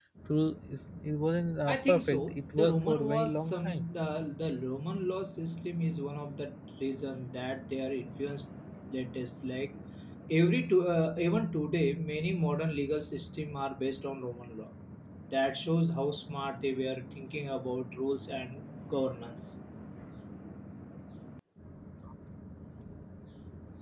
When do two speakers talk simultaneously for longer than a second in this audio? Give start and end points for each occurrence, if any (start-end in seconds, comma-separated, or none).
1.7-3.8